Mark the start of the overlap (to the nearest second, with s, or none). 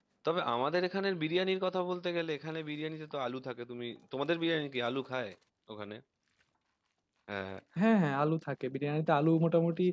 none